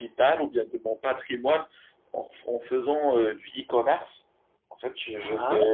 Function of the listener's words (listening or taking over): listening